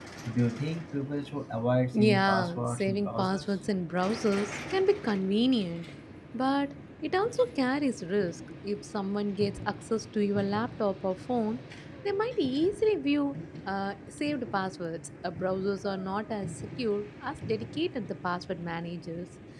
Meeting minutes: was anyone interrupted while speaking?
Yes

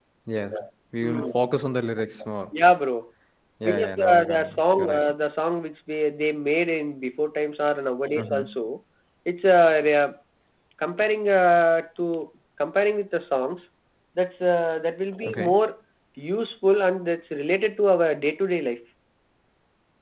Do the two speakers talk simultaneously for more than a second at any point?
Yes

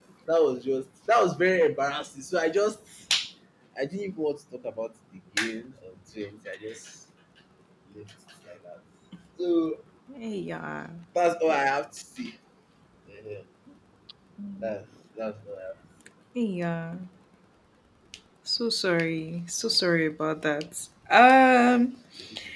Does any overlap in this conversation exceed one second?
No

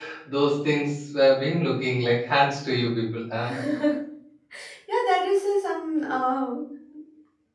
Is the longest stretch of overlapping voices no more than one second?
Yes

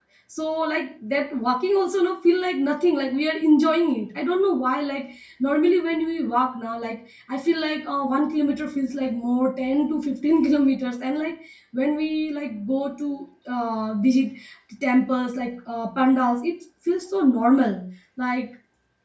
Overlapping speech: No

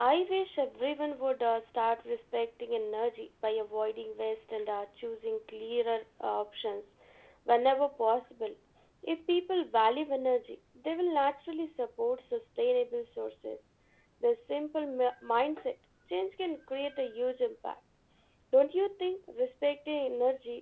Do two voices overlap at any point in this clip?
No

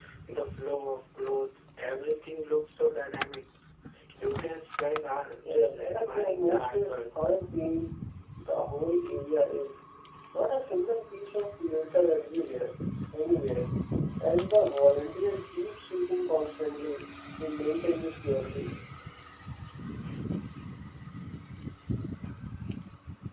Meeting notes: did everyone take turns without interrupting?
No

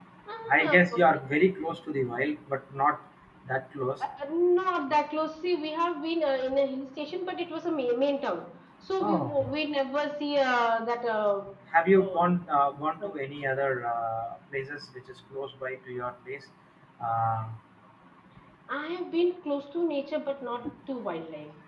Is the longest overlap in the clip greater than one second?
No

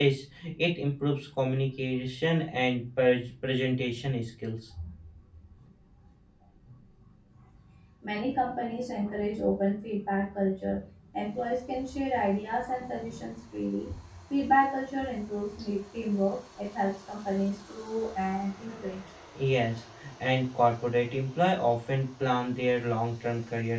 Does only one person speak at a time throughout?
Yes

